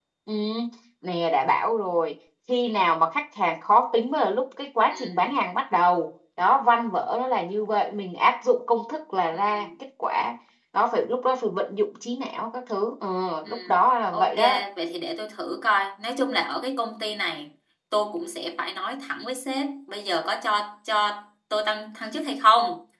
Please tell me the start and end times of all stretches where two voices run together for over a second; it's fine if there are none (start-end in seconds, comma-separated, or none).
none